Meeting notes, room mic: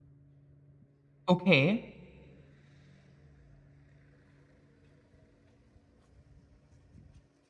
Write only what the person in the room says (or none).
okay.